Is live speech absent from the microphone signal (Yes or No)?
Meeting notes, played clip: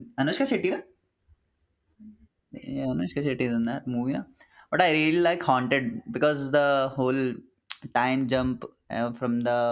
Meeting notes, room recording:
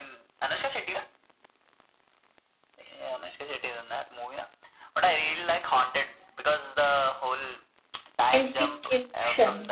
No